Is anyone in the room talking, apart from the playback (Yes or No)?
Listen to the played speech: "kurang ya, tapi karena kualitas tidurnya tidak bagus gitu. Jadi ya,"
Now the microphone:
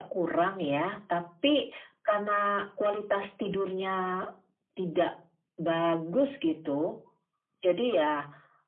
No